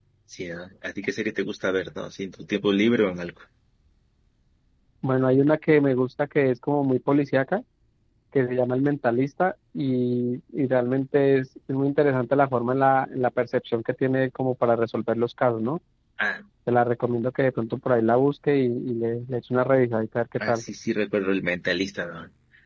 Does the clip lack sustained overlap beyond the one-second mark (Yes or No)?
Yes